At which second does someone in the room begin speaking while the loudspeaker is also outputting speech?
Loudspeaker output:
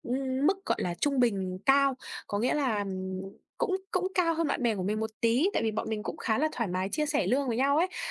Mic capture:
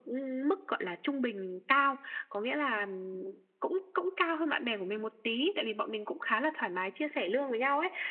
none

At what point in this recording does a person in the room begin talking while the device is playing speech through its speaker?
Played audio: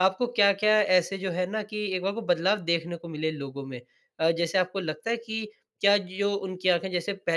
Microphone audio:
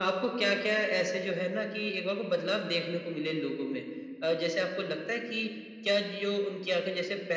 none

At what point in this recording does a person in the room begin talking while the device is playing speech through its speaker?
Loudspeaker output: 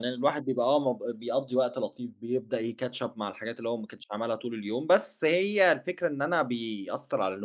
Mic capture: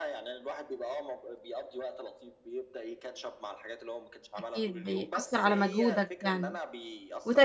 4.4 s

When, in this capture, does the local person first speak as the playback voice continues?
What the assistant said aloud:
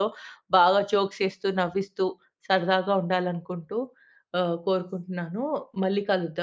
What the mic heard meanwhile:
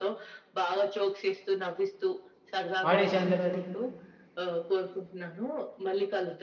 2.8 s

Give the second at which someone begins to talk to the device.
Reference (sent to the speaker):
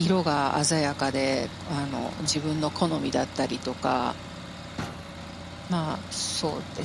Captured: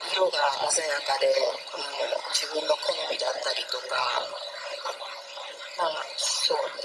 none

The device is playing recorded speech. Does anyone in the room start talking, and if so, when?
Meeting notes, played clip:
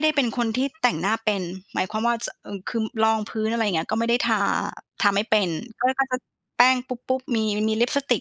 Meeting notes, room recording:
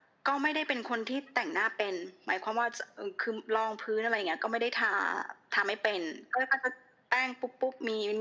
none

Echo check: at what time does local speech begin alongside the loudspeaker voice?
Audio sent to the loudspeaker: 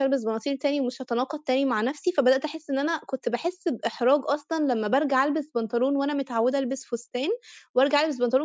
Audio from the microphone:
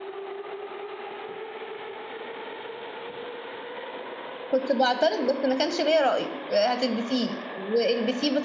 4.5 s

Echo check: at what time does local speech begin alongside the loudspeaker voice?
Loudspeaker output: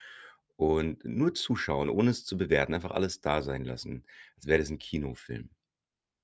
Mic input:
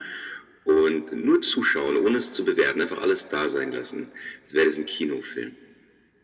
none

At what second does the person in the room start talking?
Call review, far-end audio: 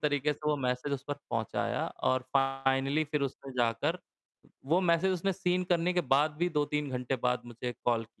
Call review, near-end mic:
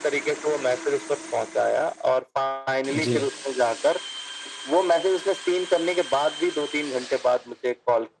2.9 s

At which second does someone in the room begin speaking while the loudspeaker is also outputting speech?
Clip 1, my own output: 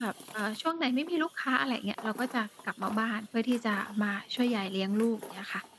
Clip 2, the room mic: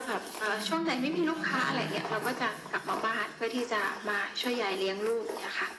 0.4 s

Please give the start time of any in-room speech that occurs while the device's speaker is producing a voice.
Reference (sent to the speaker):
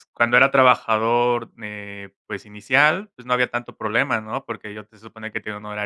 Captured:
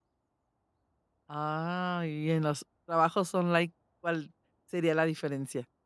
1.3 s

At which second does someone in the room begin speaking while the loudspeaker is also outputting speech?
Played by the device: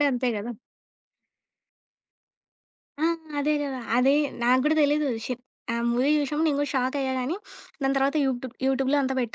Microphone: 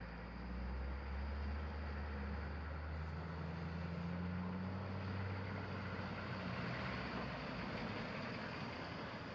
none

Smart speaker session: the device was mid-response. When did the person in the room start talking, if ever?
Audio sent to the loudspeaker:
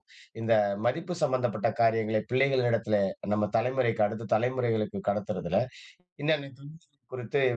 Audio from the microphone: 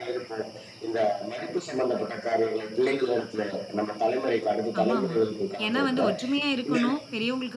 4.8 s

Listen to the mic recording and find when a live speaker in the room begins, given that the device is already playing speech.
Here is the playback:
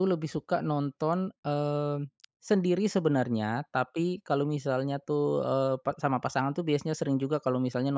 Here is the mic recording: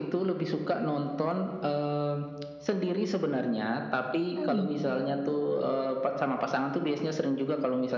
4.4 s

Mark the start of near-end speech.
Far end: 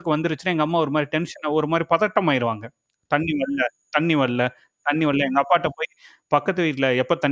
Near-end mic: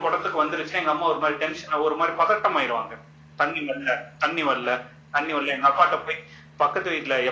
none

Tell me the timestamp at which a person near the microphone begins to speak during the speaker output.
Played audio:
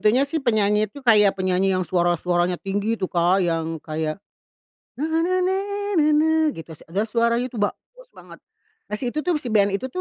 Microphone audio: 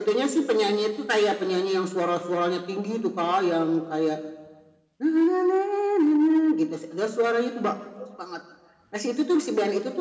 none

